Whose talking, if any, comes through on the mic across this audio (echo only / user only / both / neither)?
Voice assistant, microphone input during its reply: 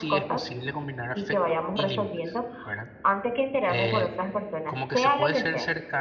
both